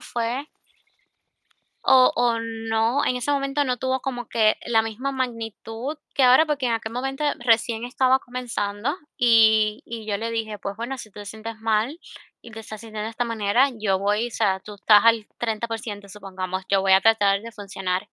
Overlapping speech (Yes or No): No